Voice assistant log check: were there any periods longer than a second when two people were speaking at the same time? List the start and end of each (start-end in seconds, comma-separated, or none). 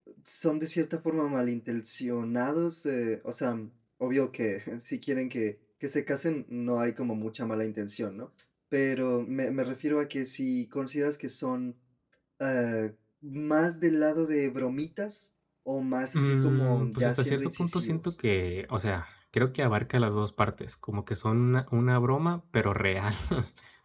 16.1-18.0